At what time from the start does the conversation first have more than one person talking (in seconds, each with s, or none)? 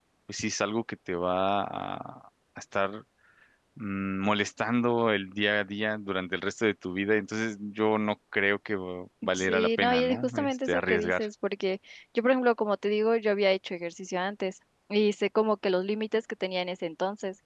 9.3 s